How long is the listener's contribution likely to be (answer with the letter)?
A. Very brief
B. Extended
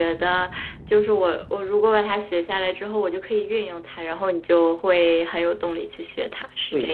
B